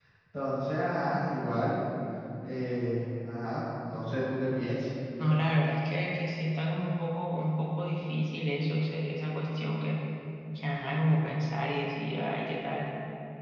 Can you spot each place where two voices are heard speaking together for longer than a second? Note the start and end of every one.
none

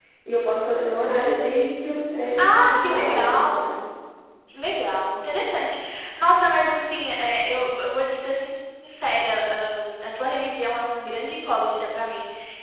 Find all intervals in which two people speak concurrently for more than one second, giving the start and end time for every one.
2.4-3.7

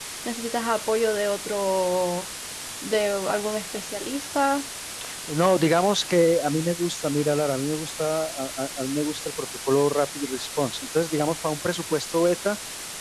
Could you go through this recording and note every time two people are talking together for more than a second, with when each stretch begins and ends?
none

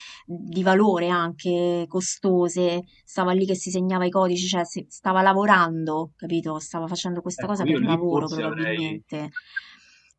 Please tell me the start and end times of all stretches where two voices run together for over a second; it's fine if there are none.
7.4-9.0

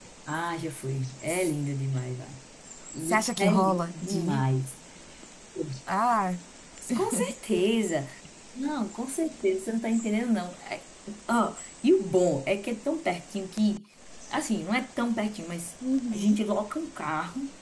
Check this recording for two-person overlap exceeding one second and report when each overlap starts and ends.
3.0-4.4

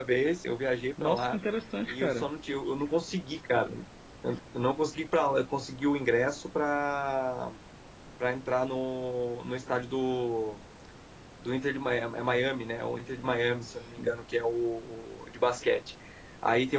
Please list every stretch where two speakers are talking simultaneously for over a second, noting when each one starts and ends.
none

